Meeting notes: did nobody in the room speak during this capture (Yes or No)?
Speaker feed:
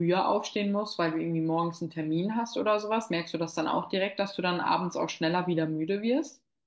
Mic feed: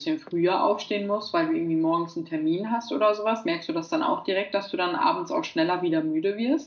Yes